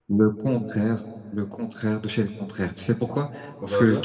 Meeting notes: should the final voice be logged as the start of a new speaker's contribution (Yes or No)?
No